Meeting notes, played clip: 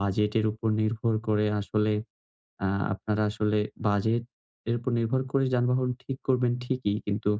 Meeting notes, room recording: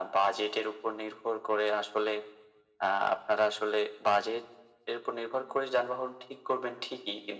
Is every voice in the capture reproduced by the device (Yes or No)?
Yes